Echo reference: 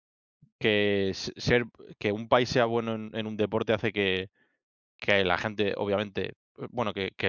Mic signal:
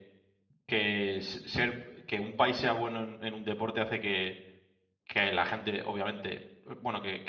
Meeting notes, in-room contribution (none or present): none